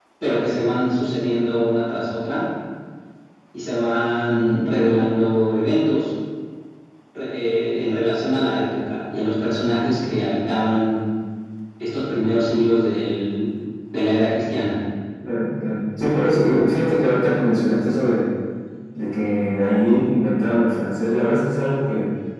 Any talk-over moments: No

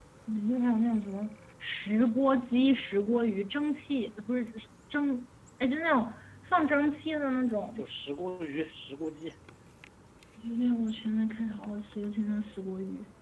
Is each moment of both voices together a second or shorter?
Yes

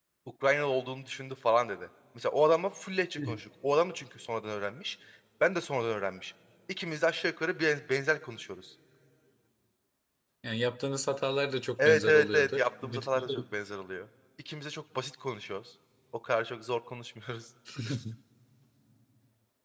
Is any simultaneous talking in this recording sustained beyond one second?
Yes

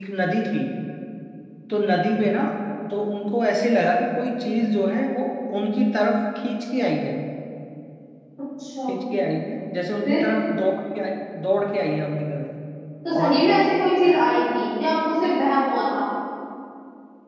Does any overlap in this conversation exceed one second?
No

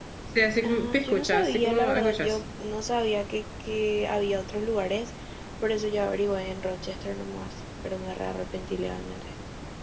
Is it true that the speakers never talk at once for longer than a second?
No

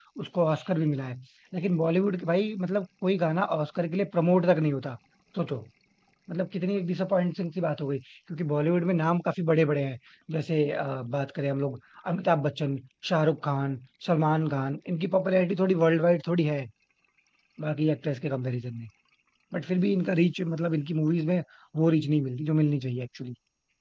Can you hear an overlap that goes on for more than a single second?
No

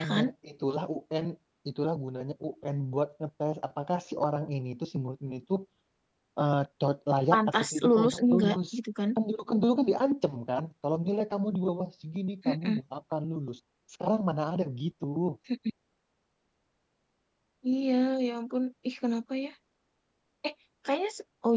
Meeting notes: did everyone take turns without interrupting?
No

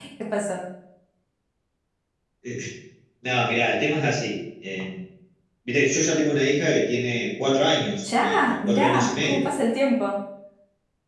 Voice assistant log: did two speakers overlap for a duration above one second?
Yes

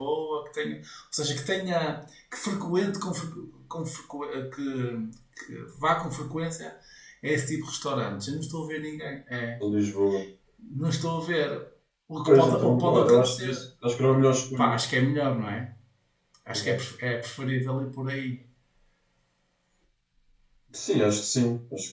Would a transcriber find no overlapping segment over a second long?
No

